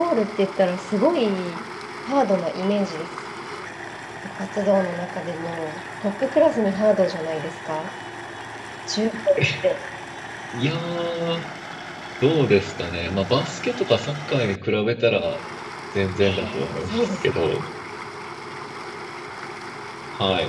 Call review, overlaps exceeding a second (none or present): present